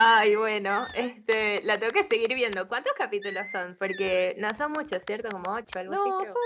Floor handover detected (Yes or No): Yes